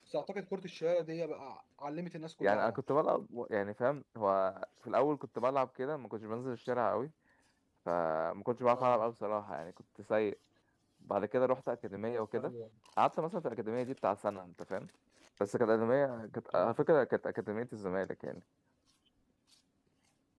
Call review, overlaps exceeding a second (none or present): none